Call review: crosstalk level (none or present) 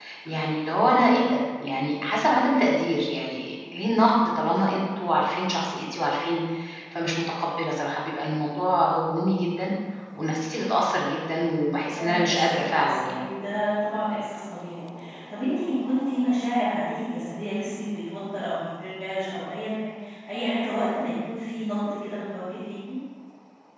present